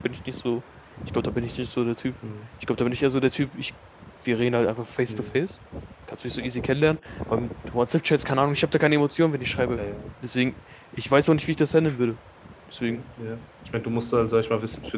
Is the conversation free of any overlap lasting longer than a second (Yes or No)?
Yes